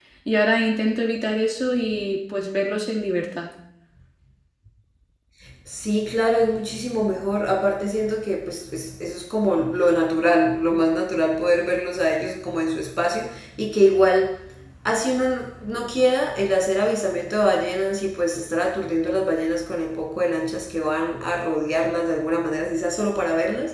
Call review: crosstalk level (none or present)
none